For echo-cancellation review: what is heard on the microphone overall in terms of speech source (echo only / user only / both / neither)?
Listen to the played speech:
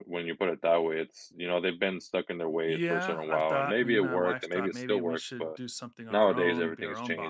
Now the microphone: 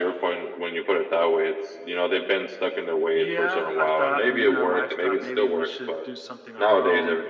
echo only